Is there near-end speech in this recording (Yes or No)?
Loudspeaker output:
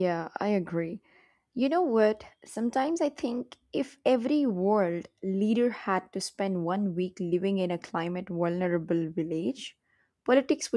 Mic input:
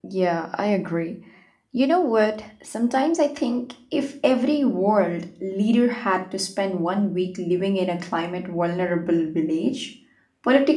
No